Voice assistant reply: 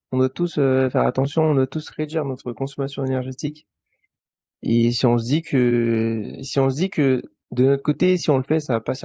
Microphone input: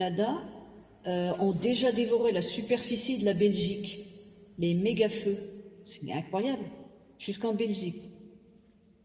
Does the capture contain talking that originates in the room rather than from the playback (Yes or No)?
Yes